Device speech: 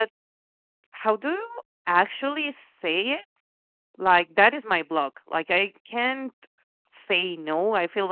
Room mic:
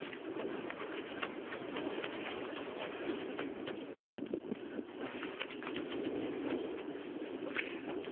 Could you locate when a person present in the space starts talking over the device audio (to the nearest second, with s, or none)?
none